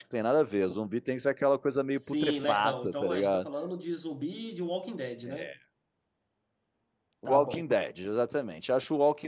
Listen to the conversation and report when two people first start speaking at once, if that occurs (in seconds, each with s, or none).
1.9 s